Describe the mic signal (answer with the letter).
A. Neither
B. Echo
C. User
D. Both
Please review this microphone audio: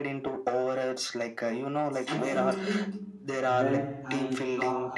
D